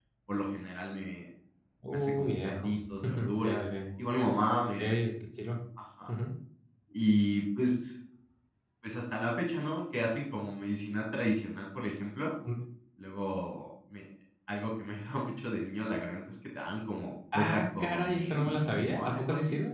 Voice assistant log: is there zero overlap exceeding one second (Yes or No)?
No